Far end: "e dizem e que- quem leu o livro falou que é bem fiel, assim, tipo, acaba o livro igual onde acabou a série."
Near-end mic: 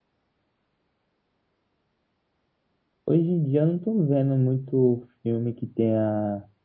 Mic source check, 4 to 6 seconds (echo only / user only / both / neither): user only